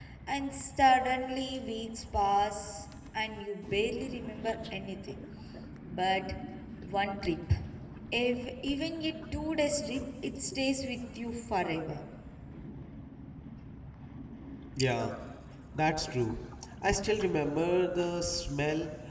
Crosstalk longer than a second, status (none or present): none